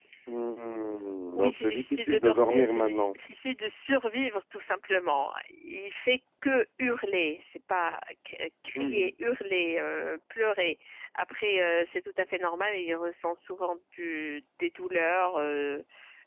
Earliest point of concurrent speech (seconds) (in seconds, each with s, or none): 1.4 s